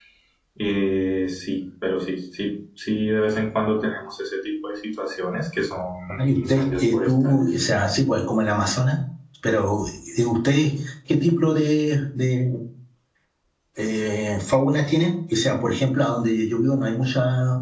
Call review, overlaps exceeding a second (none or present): present